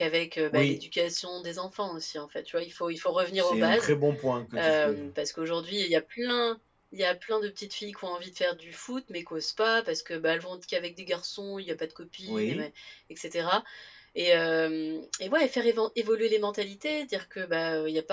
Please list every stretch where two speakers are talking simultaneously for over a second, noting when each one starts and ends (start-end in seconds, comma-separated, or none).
none